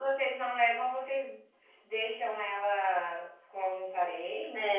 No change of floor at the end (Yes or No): No